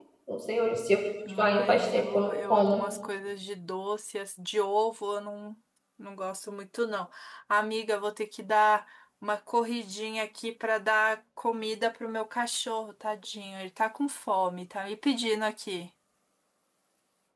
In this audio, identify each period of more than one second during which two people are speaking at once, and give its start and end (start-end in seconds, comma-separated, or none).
1.4-2.8